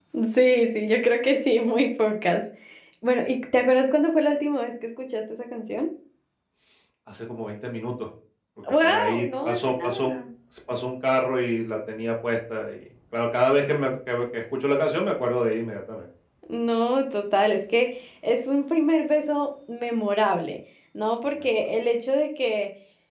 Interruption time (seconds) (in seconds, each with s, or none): 8.8 s